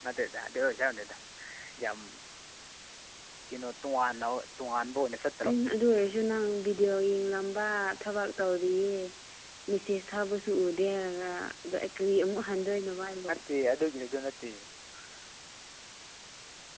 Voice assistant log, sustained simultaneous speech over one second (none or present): none